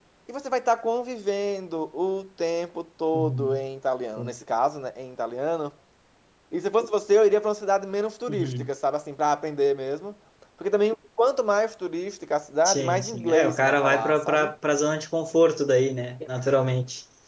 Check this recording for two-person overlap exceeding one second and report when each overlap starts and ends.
12.7-14.5

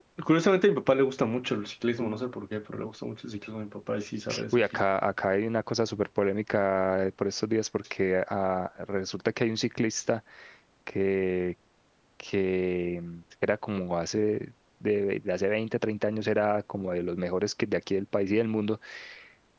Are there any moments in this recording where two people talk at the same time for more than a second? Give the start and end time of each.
none

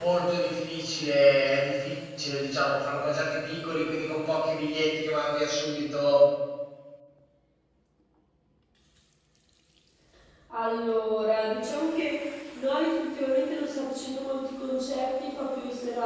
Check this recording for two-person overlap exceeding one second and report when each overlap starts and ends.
none

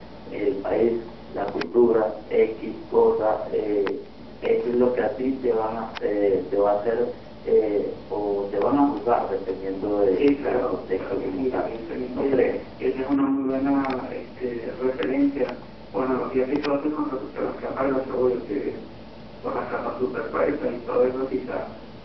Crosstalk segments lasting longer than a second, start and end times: 10.1-11.7

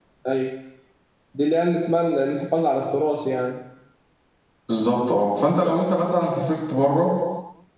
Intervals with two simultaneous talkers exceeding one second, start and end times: none

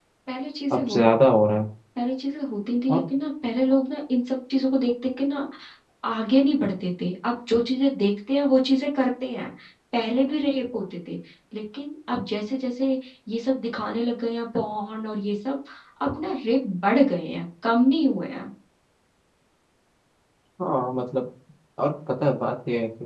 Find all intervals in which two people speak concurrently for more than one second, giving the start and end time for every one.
none

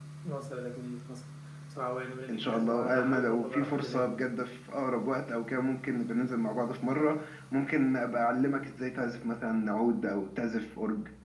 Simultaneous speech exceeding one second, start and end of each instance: 2.3-4.2

